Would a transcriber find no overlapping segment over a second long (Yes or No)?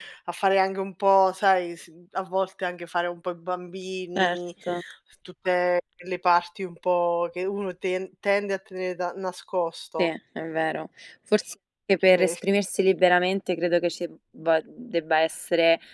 Yes